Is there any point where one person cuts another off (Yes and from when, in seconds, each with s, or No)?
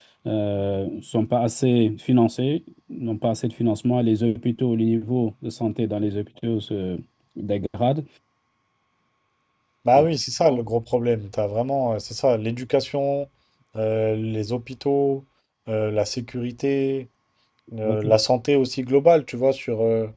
No